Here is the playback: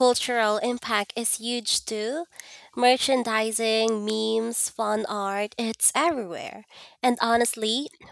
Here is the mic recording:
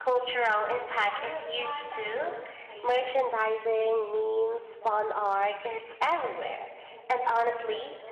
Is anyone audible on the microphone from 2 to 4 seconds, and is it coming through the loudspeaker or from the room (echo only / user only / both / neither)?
both